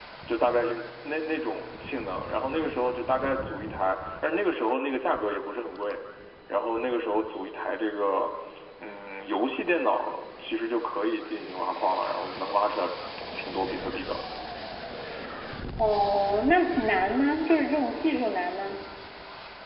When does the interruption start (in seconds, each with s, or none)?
none